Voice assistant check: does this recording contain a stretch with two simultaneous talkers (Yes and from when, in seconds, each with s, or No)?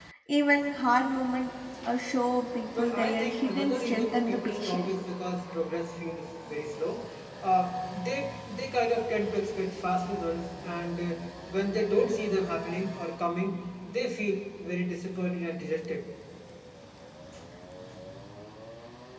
Yes, from 2.8 s